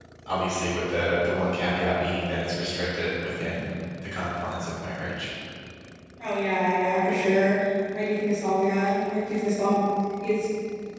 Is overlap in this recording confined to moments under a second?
Yes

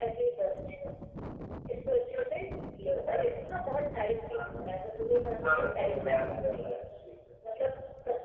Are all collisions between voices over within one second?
No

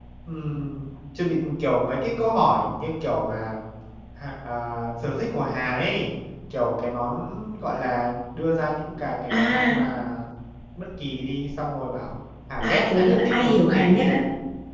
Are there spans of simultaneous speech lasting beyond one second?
Yes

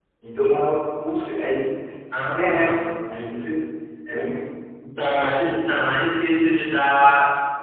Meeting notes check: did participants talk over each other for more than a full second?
No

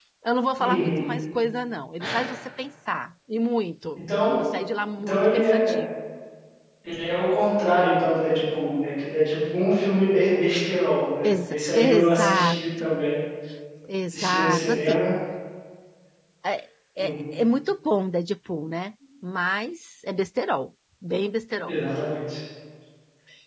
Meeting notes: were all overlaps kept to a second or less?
No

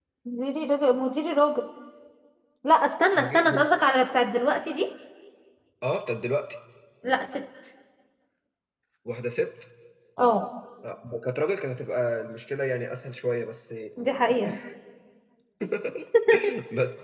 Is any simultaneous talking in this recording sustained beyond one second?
No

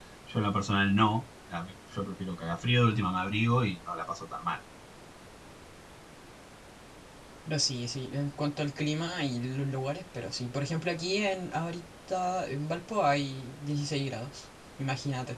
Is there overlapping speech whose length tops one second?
No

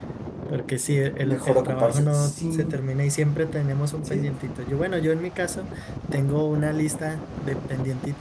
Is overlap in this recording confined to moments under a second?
No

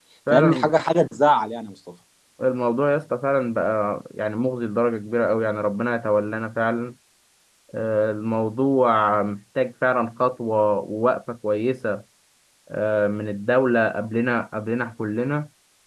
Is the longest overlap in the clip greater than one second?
No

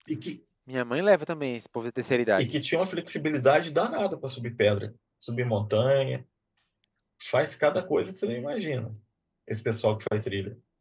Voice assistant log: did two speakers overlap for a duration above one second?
No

